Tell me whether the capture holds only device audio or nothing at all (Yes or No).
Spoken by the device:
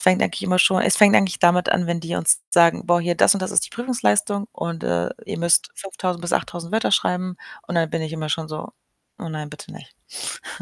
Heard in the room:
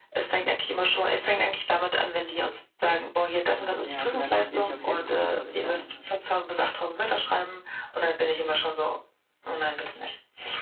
No